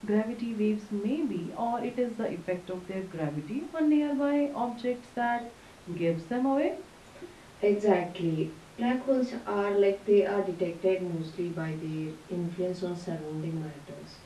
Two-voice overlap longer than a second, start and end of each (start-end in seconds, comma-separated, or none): none